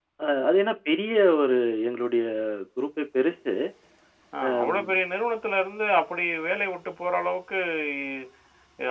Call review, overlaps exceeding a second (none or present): none